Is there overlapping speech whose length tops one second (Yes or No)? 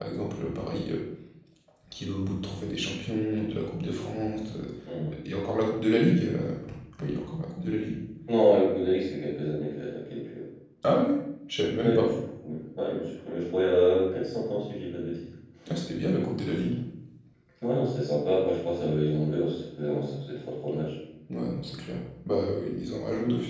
No